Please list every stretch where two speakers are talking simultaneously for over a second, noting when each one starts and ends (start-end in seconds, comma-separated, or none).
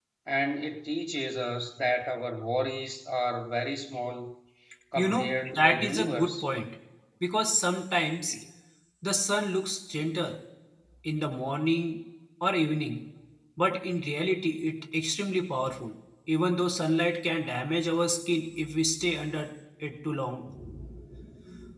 5.0-6.4